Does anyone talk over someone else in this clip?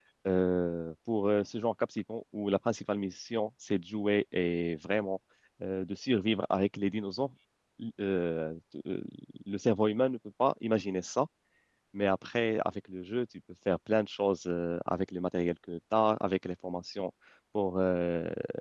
No

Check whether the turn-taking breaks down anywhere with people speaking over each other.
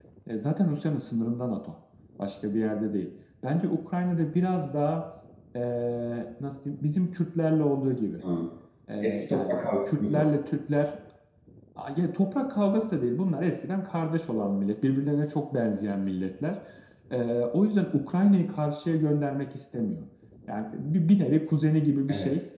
Yes, from 9.0 s

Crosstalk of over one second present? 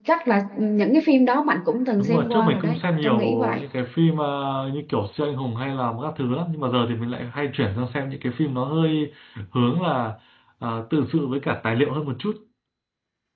Yes, from 2.0 s

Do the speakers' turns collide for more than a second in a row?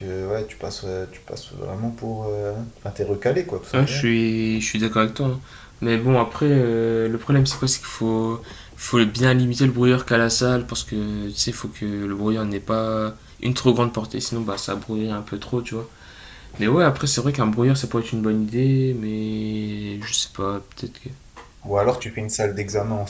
No

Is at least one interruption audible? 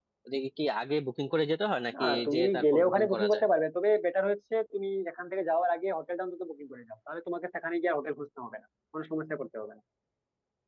Yes, from 1.9 s

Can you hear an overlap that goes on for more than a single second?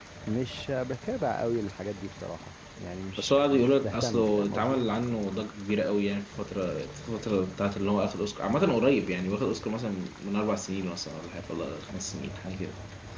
Yes, from 3.2 s

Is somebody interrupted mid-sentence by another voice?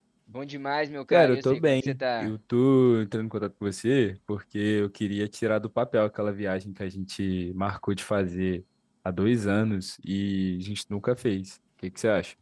Yes, from 1.1 s

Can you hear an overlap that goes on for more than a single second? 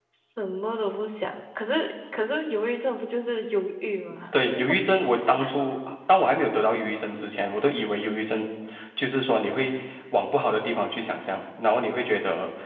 No

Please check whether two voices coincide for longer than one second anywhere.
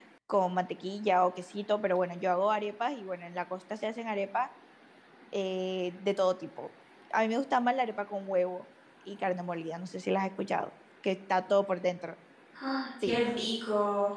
No

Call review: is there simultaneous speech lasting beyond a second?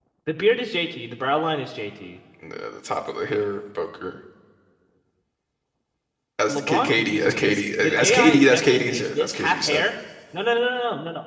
Yes, from 6.5 s

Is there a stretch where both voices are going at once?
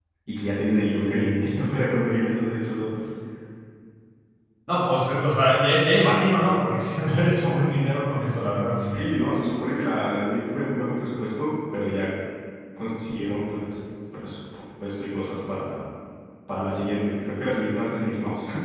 No

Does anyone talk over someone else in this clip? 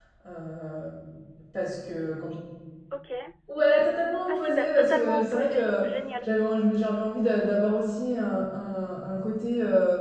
Yes, from 4.3 s

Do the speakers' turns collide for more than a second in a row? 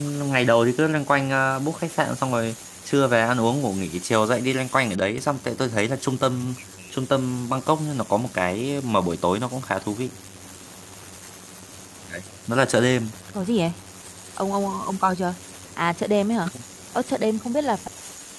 No

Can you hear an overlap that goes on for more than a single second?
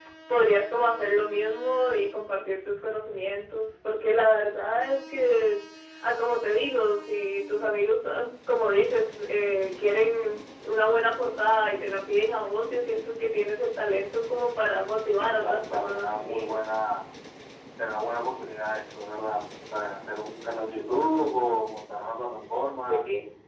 Yes, from 15.2 s

